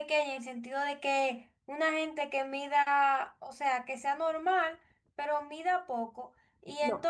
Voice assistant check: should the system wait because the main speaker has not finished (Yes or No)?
Yes